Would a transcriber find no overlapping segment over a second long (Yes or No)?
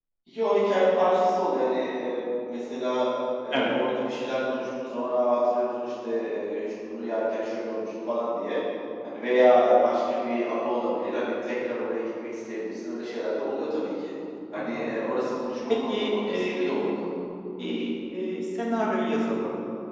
No